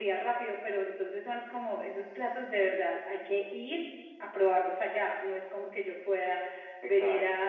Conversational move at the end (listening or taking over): listening